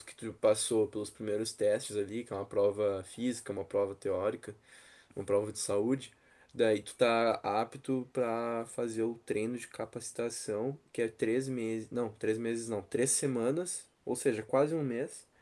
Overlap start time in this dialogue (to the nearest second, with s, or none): none